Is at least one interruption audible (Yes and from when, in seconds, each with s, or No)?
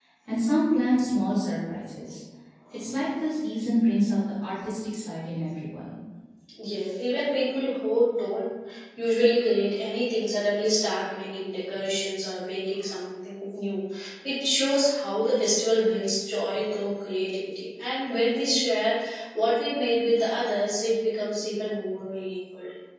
No